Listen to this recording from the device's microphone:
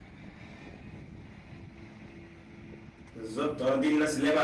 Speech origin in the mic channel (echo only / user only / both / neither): user only